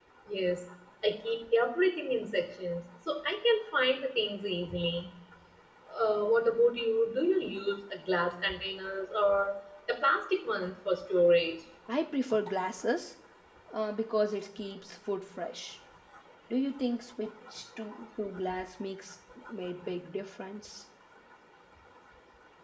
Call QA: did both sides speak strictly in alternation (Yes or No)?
Yes